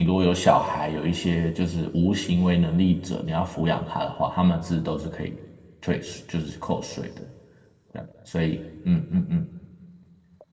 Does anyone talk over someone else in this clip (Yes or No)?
No